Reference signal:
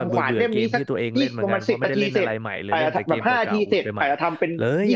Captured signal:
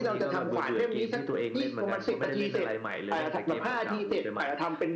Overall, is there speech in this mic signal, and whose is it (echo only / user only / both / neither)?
echo only